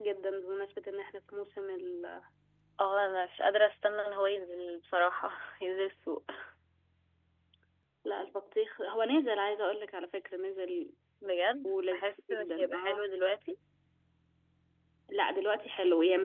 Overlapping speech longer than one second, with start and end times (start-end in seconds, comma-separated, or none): 11.6-13.1